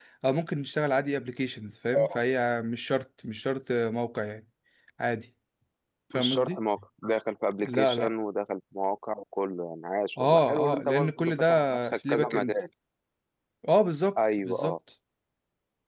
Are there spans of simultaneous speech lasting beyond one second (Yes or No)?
Yes